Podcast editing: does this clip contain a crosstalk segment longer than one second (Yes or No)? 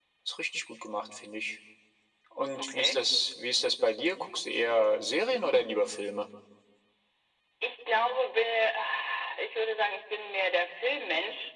No